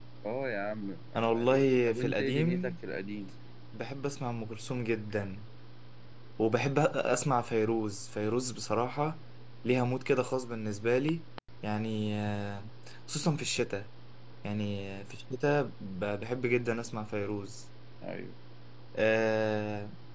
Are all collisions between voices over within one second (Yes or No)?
No